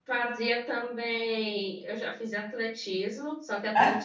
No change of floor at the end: Yes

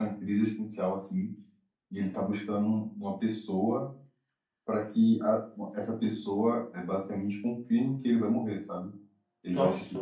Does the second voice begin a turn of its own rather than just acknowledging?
No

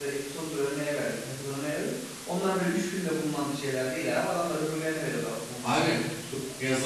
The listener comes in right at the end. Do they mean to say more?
Yes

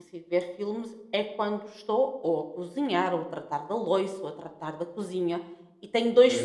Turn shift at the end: No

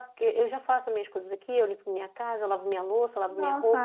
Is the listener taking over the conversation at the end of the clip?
Yes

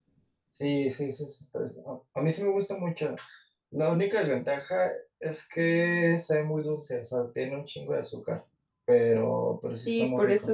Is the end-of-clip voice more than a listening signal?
Yes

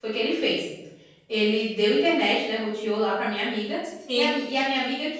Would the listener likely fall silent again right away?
Yes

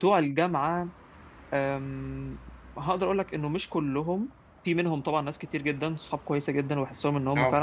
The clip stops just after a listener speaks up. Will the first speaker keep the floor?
Yes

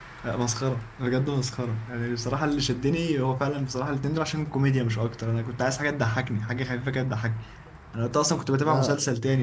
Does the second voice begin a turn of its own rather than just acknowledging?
No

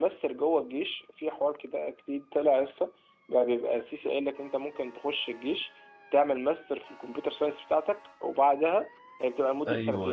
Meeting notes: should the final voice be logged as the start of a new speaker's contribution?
No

